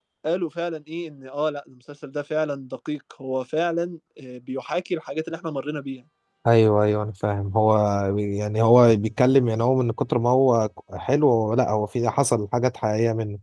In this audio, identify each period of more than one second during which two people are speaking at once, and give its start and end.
none

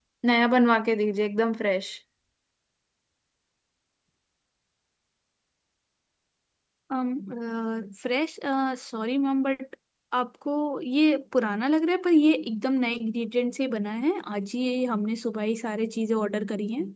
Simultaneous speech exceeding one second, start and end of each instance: none

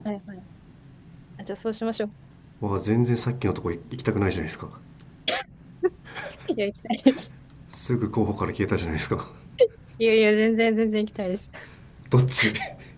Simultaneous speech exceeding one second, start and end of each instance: none

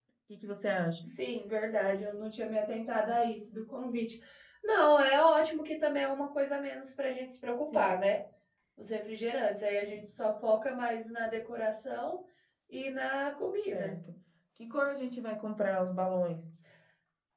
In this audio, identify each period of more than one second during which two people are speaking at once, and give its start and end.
none

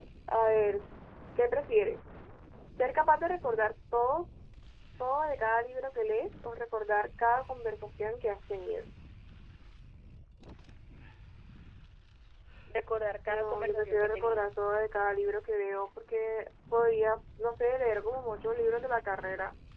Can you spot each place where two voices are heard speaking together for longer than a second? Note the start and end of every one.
13.3-14.5

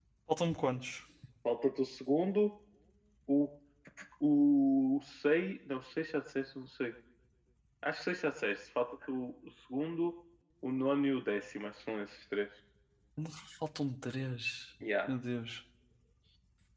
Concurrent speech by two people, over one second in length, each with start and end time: none

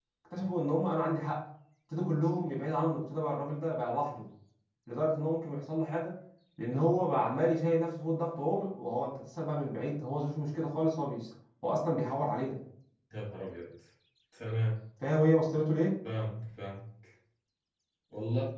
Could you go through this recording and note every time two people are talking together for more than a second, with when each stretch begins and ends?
none

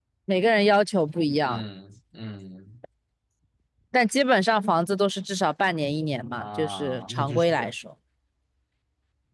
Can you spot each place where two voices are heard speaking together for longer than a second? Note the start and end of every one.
6.4-7.7

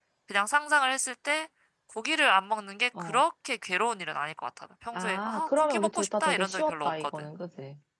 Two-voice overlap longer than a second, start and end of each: 5.0-7.1

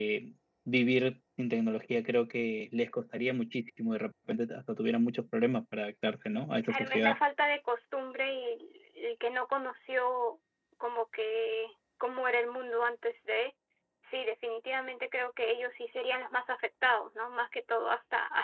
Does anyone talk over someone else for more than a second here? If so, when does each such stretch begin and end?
none

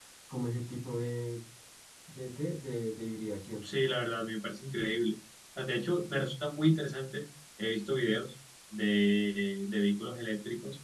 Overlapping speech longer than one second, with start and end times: none

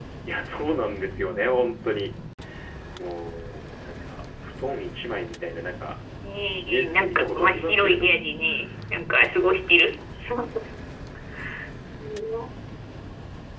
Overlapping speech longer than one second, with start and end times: 6.7-8.2

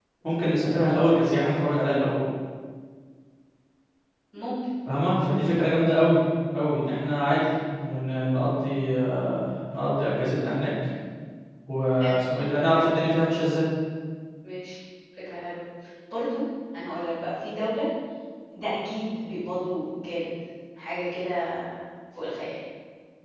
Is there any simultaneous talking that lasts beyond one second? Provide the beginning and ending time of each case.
none

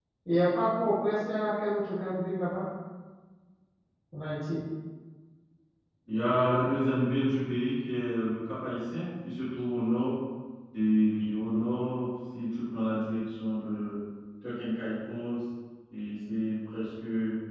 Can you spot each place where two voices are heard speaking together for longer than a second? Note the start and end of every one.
none

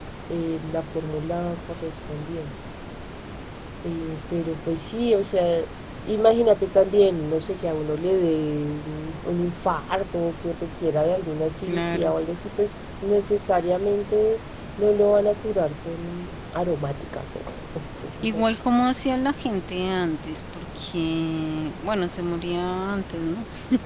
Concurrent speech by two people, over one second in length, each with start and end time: none

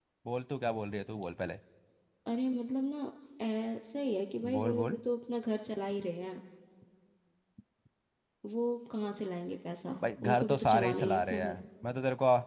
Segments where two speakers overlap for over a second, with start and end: 10.0-11.5

